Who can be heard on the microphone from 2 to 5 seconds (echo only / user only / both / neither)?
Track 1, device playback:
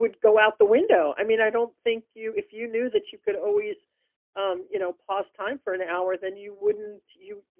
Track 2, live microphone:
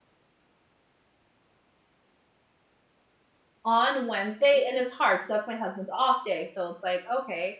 user only